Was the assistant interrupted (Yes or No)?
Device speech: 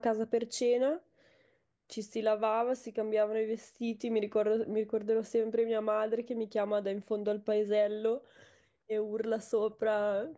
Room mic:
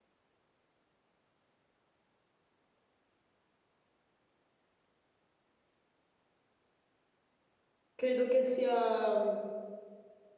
Yes